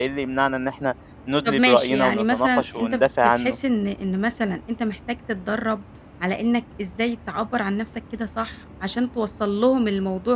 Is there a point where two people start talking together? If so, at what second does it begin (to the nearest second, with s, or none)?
1 s